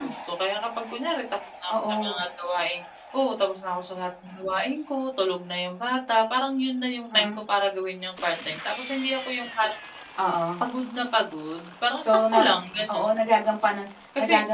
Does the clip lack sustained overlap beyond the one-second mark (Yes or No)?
Yes